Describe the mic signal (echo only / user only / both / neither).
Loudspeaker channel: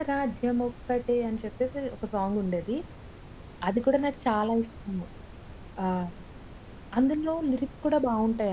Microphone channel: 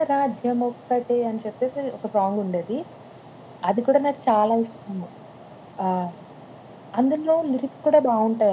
echo only